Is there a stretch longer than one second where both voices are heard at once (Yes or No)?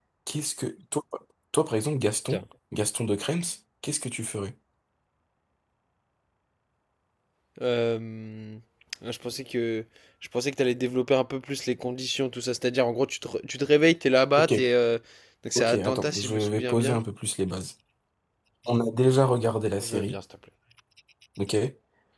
Yes